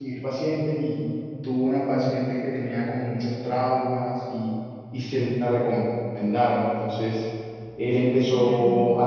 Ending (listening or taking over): listening